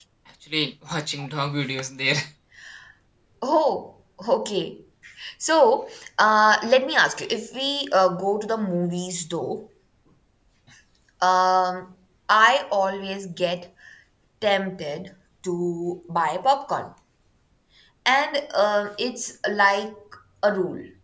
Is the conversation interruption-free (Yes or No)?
Yes